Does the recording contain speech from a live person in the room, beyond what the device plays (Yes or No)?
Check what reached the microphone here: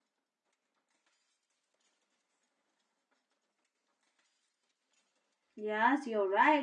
Yes